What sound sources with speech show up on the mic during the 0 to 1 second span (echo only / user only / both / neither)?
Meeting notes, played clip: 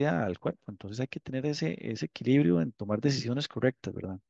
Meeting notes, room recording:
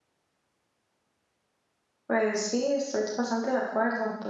neither